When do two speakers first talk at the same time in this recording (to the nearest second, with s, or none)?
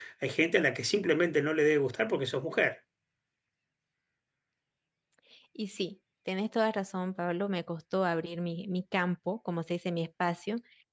none